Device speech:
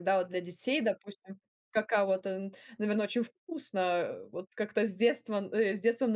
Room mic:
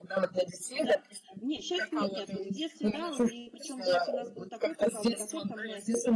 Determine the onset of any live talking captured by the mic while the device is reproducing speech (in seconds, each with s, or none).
0.7 s